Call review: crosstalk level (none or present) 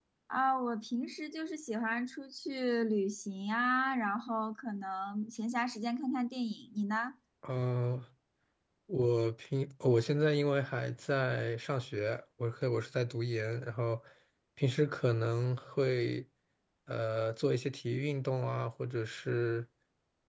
none